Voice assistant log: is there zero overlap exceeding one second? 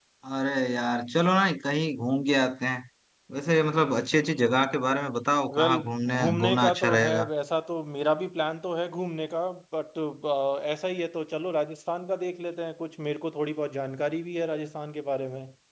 No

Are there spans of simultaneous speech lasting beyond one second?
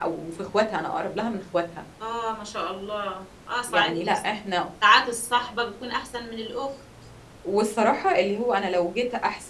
No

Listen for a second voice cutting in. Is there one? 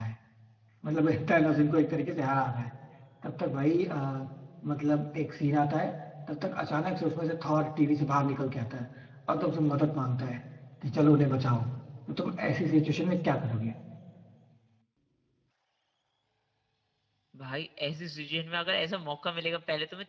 No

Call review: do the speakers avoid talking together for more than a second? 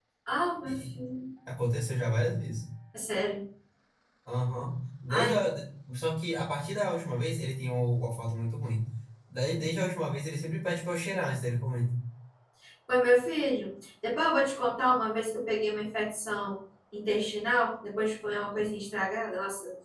Yes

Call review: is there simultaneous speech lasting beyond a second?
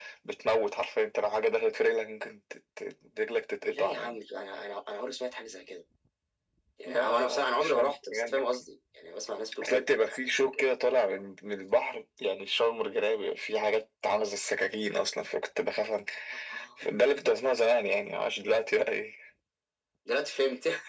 Yes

